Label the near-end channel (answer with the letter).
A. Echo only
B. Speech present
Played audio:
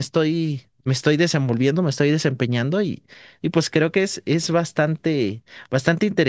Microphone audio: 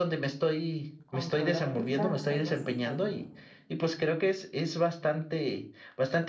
B